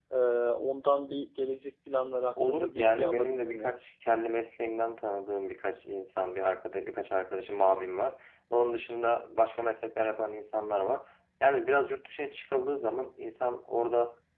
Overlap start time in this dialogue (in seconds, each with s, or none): 2.4 s